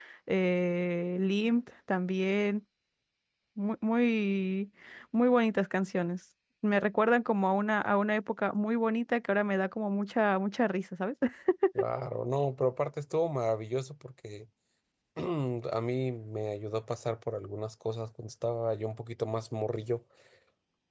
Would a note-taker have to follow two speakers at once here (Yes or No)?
No